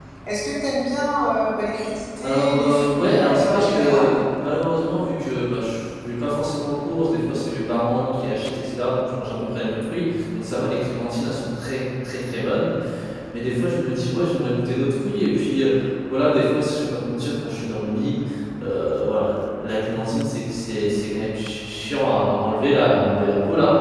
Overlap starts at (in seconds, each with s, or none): 2.2 s